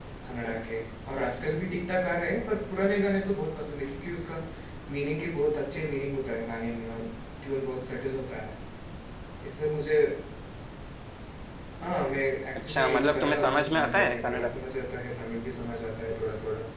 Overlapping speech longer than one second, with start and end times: 12.7-14.5

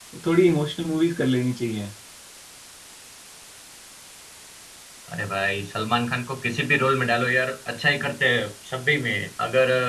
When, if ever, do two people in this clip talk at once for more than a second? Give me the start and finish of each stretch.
none

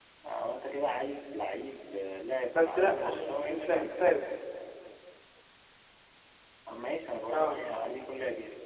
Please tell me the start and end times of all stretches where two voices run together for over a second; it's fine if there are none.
2.5-3.9

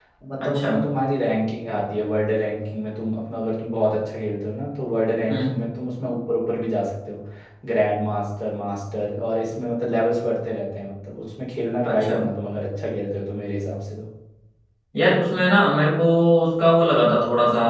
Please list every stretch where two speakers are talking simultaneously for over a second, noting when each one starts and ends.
none

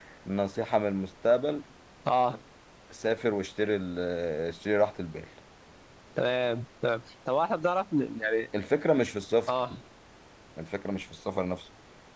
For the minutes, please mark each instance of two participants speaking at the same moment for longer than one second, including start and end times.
none

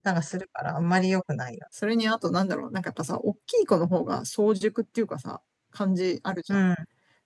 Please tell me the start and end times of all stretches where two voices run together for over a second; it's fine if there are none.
none

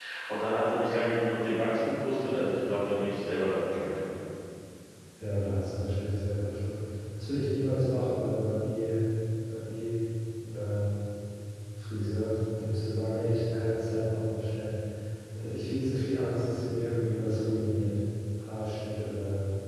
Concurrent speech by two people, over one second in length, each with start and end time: none

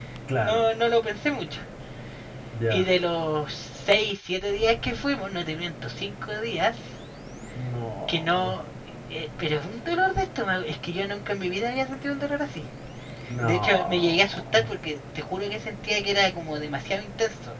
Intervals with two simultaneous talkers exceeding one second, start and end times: 13.4-14.7

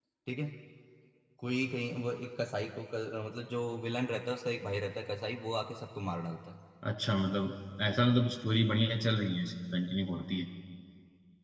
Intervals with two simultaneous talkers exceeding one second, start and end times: none

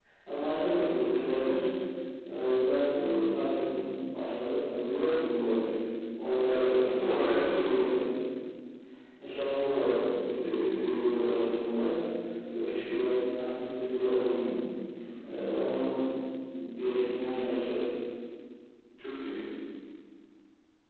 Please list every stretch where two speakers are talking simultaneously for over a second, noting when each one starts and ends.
6.5-7.8

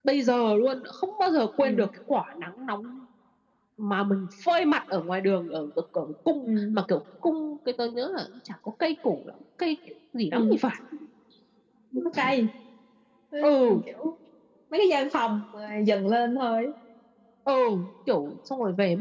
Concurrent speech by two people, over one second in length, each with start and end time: none

